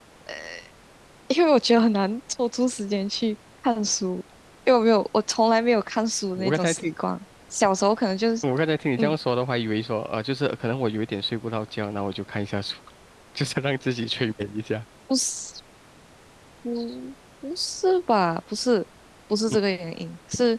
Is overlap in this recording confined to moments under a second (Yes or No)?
Yes